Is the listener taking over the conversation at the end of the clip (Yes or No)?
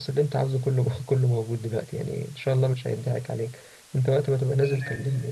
Yes